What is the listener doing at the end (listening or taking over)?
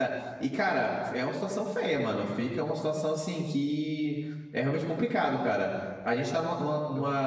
listening